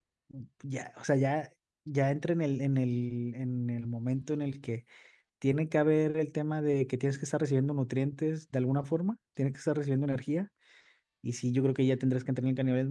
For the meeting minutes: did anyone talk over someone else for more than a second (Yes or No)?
No